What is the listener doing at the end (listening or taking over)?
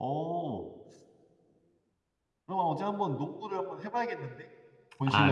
taking over